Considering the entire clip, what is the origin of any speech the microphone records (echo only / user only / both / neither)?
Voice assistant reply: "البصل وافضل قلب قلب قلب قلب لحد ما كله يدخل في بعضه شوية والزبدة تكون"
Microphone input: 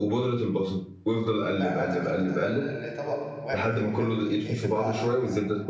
both